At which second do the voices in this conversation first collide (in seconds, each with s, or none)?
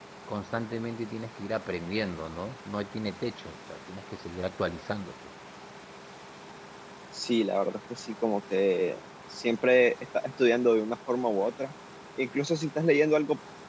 none